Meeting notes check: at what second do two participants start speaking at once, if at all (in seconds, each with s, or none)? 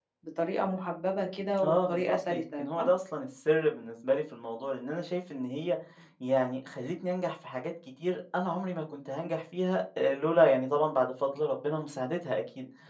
1.6 s